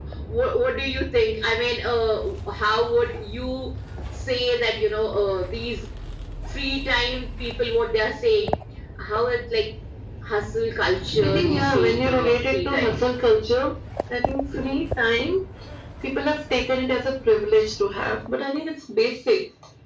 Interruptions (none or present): present